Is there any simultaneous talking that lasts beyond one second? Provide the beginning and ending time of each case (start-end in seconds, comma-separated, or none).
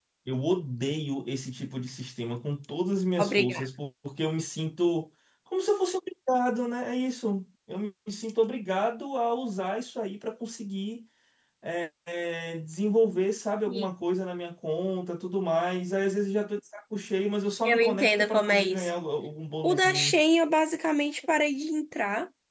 17.6-18.9